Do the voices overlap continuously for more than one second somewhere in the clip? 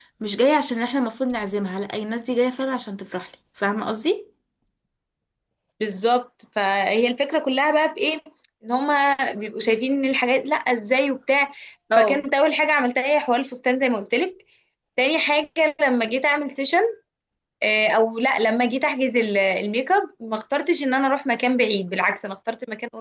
No

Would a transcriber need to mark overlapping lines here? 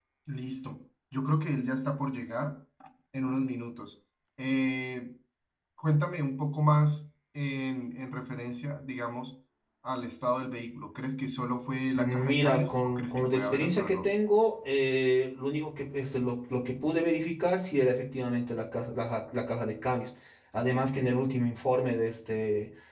Yes, from 12.0 s

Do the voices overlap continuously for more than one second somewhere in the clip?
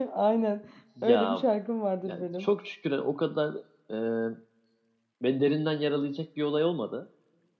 No

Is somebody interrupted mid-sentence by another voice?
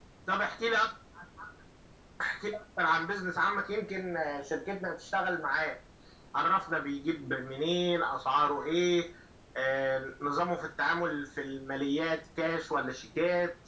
No

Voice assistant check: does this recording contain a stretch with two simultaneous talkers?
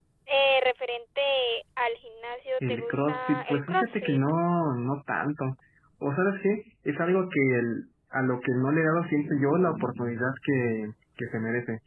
Yes, from 2.6 s

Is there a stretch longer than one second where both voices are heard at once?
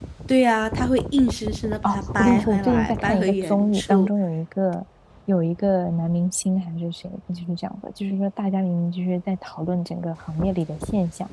Yes, from 1.8 s

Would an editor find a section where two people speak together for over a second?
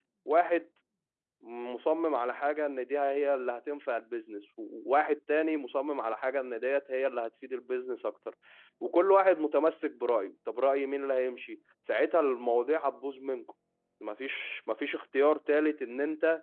No

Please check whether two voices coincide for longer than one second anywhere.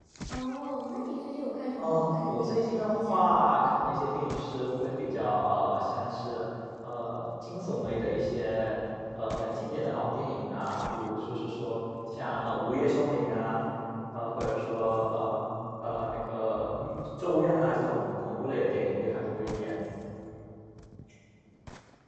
Yes, from 1.8 s

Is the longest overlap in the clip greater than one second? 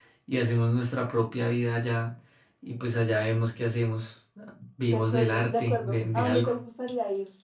Yes, from 4.8 s

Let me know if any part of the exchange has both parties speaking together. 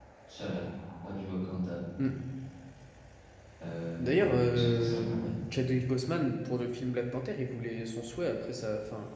Yes, from 4.0 s

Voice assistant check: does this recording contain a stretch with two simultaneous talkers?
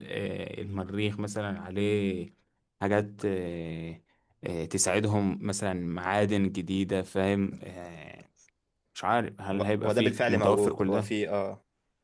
Yes, from 9.5 s

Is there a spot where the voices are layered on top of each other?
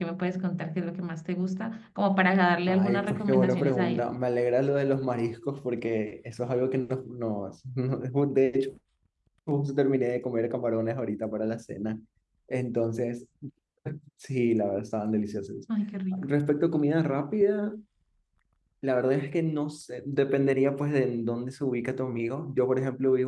Yes, from 2.7 s

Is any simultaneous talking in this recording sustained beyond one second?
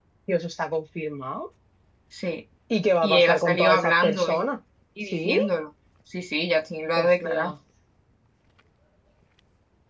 Yes, from 3.0 s

